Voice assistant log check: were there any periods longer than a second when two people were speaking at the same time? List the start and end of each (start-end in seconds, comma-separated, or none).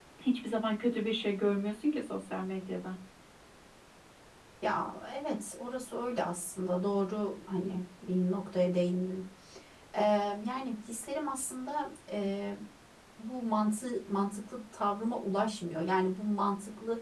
none